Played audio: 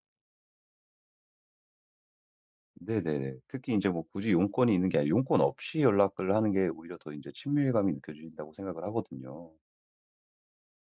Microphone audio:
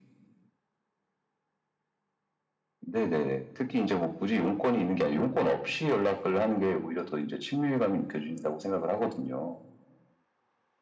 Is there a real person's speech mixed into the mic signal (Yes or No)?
No